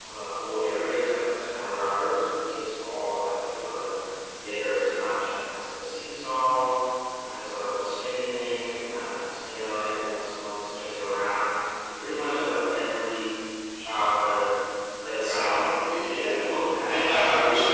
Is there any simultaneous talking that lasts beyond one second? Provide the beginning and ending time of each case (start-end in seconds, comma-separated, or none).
15.2-16.4